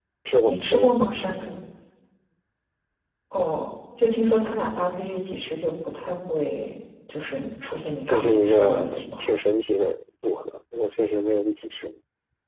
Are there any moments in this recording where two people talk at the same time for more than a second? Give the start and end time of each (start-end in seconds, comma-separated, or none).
8.1-9.3